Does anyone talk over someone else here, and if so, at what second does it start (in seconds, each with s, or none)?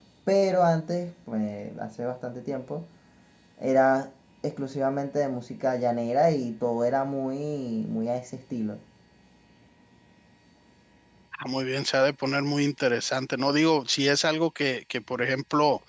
none